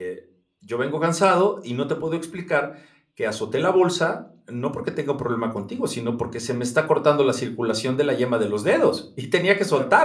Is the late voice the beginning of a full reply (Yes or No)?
Yes